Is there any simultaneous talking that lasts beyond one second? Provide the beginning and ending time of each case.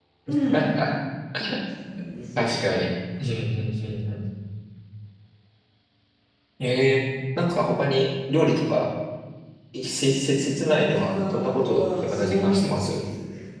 10.6-13.0

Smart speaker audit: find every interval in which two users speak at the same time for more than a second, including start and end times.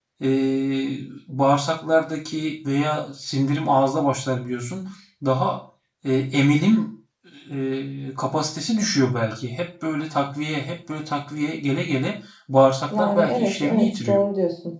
12.9-14.2

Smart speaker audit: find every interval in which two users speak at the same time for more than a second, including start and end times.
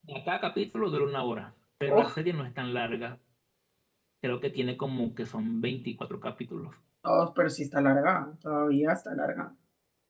none

